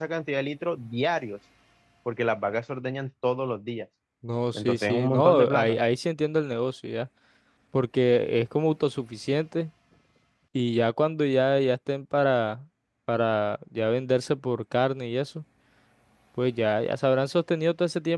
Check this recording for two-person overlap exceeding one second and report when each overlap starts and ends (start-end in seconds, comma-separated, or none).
4.5-5.8